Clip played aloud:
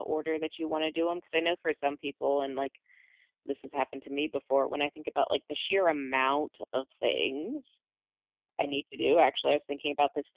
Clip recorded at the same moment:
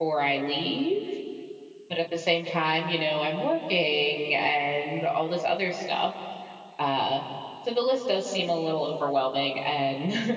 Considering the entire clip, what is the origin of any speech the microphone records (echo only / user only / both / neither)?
user only